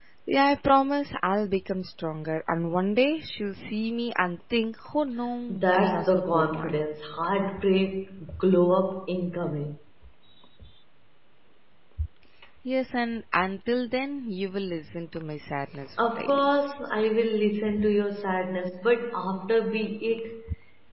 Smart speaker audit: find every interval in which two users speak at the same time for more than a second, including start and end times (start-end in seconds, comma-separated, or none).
5.5-6.8